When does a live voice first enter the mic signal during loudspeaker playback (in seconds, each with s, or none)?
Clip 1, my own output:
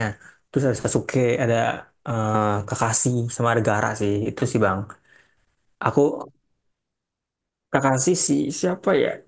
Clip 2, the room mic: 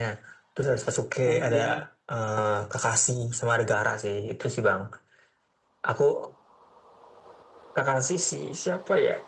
1.3 s